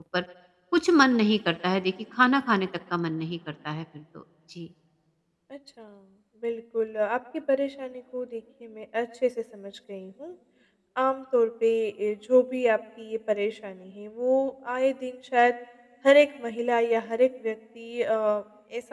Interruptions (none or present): none